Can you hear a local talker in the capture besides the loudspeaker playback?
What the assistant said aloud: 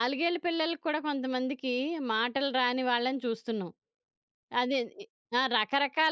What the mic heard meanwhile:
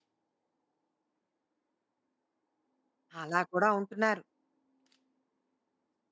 Yes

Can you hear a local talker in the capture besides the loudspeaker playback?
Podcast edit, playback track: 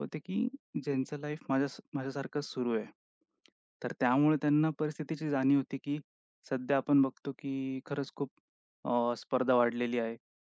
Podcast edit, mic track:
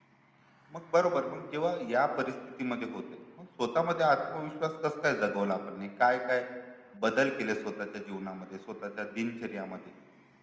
Yes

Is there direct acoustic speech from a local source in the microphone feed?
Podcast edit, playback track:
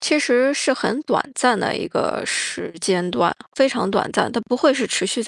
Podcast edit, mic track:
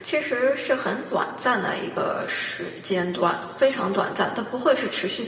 No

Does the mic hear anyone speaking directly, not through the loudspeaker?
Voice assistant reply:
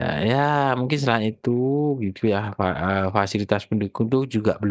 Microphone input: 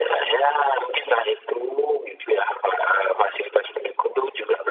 No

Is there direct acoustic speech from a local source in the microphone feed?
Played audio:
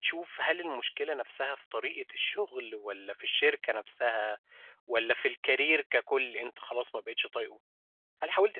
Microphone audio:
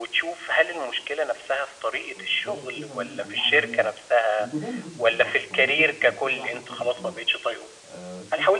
Yes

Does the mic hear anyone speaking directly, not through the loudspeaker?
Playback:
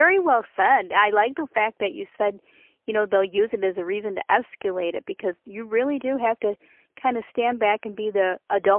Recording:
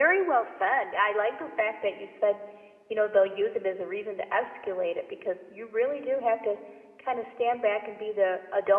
No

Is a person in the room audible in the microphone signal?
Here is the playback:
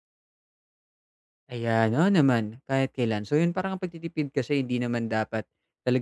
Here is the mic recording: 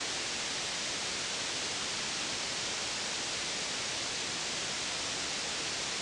No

